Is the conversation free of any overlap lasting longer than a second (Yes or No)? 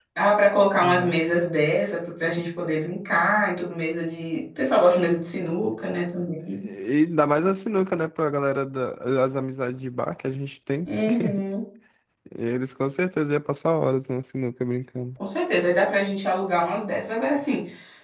Yes